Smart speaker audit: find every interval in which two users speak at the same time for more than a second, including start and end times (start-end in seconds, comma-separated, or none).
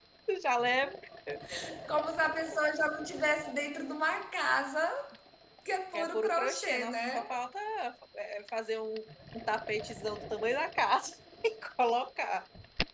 5.9-7.3